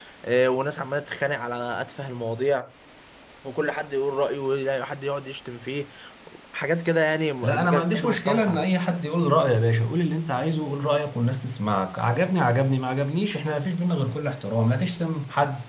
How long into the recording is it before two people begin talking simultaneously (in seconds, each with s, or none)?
7.4 s